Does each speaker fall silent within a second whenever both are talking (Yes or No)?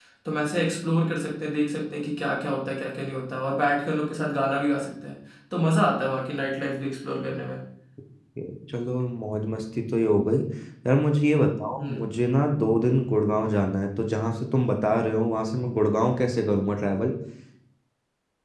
Yes